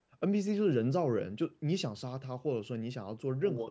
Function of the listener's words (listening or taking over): listening